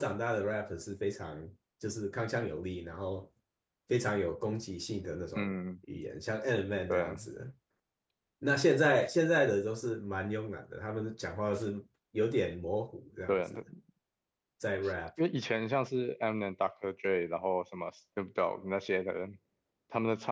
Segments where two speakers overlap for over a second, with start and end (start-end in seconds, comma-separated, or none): none